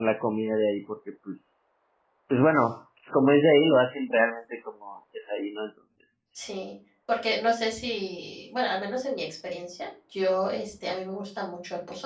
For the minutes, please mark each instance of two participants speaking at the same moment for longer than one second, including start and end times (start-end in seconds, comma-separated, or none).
none